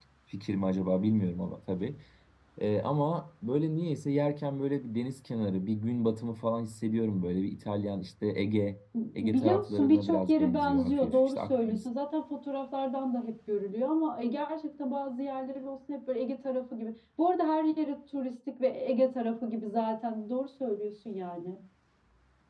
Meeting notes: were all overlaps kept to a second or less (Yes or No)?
No